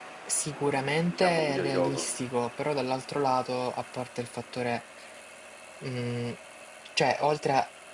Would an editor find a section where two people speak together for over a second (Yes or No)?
Yes